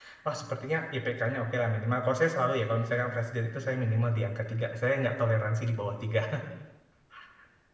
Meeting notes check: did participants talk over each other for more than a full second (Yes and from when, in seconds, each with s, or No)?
No